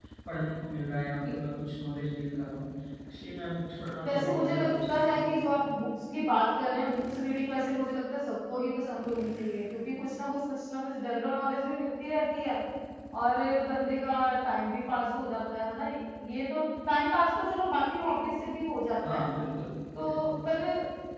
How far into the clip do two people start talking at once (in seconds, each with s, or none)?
4.0 s